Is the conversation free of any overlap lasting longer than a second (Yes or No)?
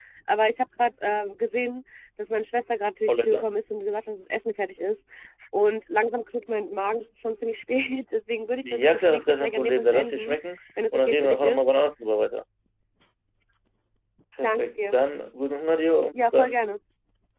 No